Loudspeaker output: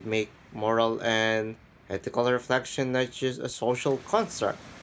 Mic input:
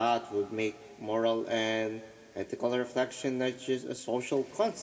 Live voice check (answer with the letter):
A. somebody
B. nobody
B